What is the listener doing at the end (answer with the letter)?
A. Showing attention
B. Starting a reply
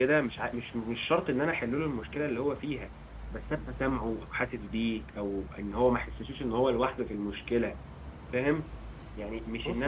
A